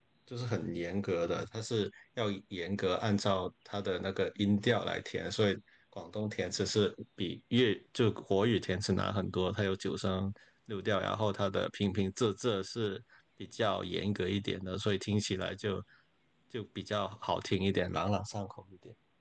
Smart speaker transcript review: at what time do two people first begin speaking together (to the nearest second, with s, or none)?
none